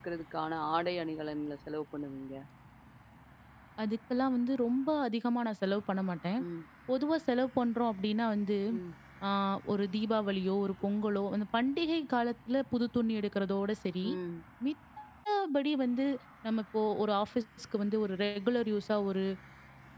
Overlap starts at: none

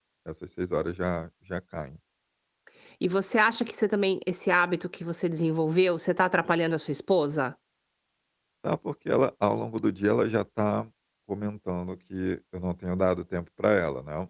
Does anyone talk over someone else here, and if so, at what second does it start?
none

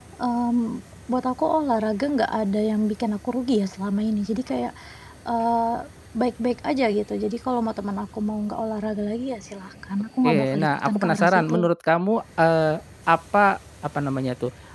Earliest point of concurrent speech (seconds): 10.2 s

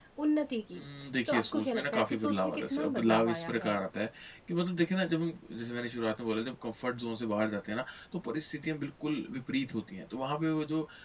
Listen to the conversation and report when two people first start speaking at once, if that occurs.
1.3 s

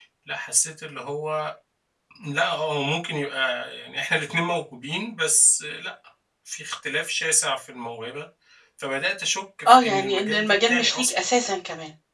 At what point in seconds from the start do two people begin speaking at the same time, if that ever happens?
9.6 s

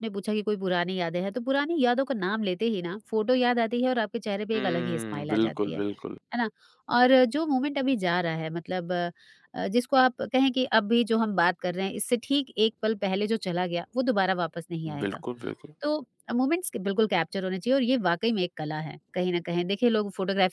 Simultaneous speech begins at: 4.5 s

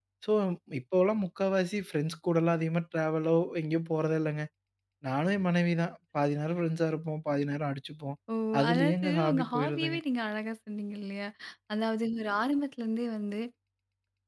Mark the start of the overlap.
8.7 s

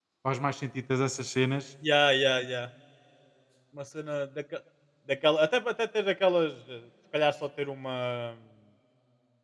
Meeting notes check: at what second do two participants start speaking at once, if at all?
none

